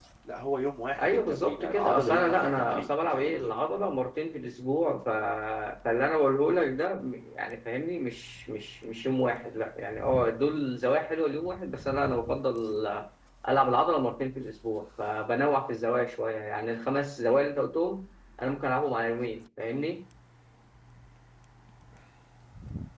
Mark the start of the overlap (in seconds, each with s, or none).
1.0 s